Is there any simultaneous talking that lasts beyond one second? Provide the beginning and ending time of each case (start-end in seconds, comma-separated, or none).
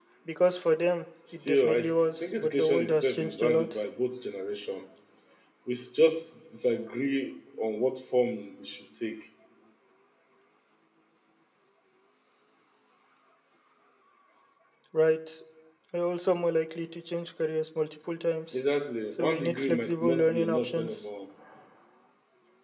1.3-3.8, 19.2-21.0